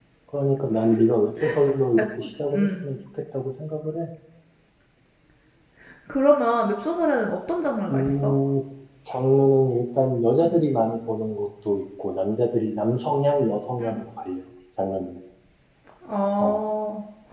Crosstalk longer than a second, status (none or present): none